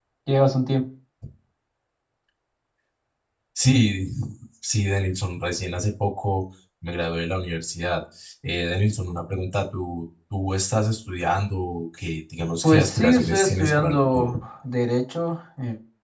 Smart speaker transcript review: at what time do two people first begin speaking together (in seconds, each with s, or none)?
12.6 s